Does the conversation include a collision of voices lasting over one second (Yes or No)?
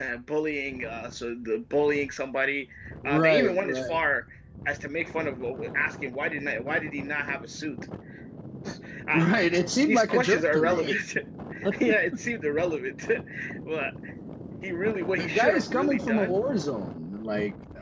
Yes